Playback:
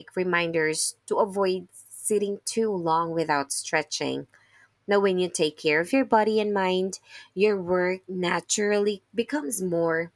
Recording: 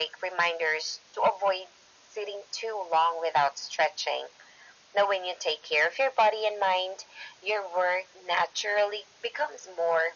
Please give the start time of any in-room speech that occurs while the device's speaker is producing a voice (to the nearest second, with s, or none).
none